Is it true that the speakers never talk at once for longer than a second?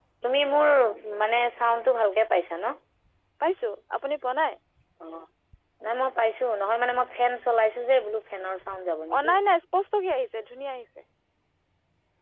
Yes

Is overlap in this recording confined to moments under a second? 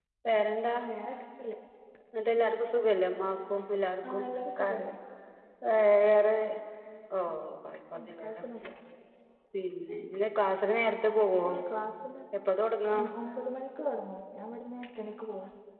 Yes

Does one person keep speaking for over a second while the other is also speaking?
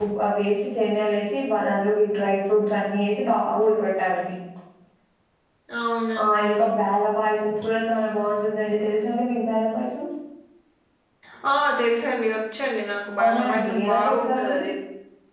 Yes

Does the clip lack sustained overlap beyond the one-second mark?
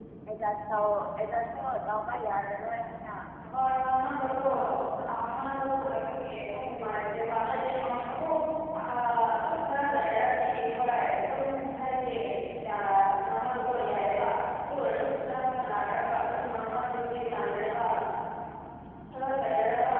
Yes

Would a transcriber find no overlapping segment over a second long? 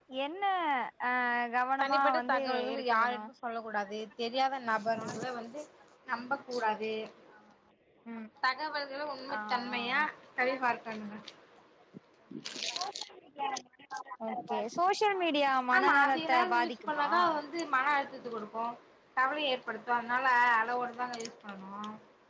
No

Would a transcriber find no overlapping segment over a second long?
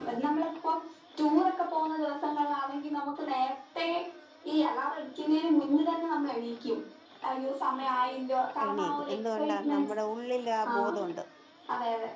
No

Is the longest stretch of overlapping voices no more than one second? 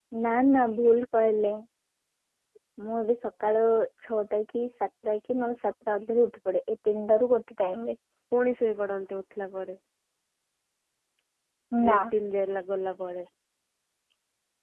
Yes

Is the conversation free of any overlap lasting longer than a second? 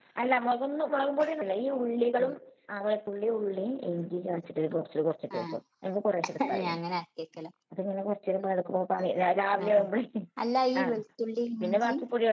Yes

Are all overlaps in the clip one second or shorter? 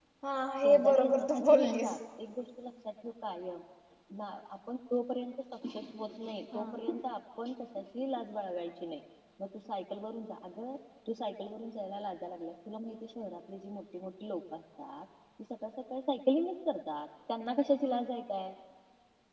No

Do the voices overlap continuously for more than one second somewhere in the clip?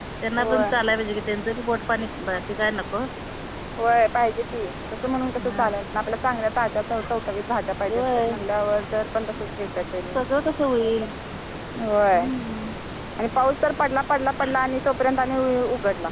No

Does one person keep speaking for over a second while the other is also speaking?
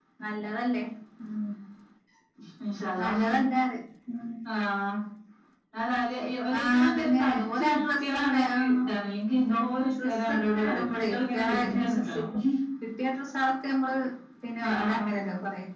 Yes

